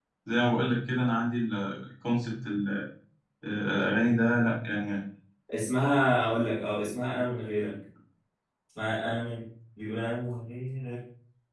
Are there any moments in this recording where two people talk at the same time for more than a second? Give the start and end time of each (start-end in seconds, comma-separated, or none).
none